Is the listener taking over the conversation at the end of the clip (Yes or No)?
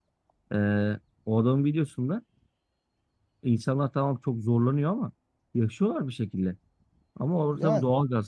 No